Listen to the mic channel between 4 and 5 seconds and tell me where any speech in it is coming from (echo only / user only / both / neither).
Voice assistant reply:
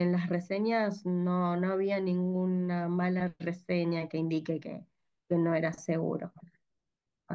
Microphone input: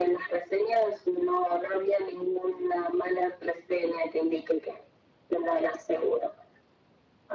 echo only